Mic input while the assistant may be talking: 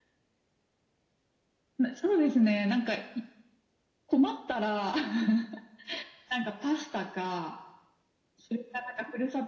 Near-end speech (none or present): none